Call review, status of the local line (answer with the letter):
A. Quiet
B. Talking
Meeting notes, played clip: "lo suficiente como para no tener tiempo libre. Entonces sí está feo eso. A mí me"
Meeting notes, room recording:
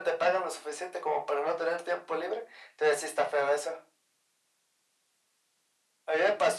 A